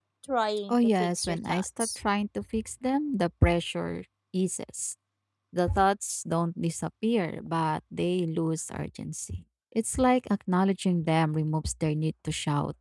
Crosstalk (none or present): present